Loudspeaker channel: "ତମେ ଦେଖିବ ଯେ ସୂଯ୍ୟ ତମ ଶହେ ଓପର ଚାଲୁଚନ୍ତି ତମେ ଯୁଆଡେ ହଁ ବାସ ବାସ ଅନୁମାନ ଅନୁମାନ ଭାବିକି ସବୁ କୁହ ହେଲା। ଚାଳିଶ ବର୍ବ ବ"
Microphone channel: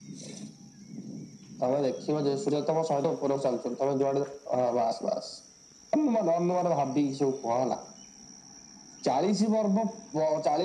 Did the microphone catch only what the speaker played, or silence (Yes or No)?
Yes